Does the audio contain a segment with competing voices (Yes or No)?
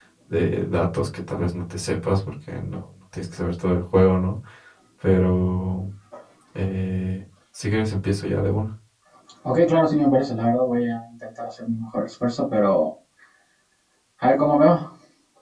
No